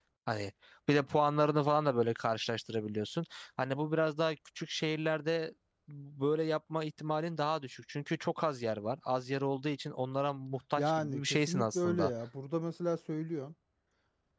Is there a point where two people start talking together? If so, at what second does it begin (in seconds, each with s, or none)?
10.8 s